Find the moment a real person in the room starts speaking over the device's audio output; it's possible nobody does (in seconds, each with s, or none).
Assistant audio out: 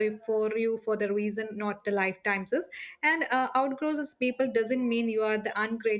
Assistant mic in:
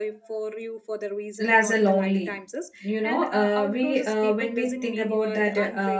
1.4 s